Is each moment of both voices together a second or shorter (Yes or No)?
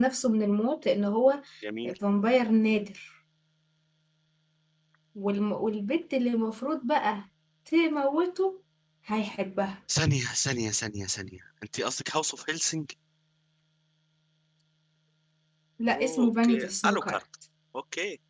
No